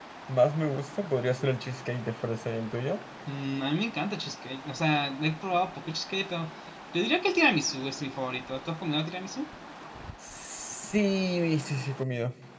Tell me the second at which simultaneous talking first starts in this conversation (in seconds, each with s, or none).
none